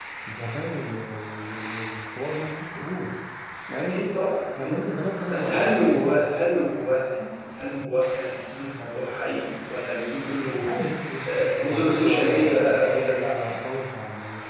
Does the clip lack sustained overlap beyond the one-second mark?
No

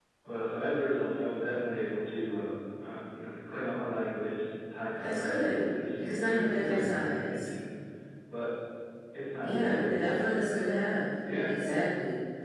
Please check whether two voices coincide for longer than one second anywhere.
Yes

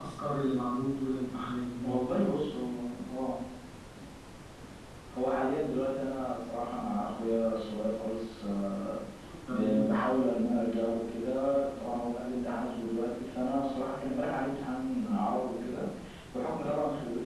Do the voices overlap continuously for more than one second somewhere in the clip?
No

